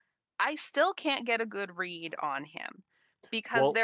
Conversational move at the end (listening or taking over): listening